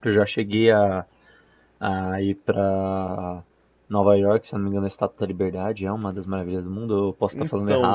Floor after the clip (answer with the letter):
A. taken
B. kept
A